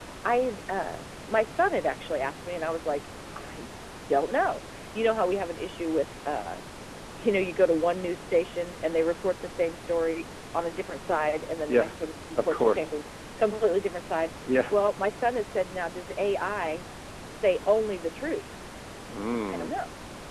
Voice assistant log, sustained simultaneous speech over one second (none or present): none